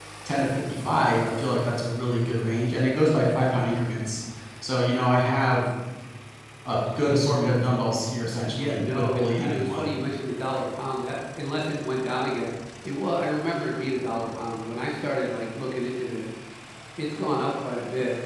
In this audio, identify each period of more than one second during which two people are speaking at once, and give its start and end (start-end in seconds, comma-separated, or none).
8.5-9.9